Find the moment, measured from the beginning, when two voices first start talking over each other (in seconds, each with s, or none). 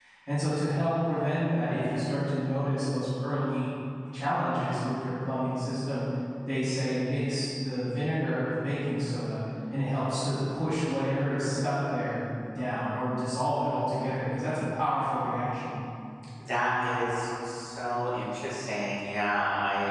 none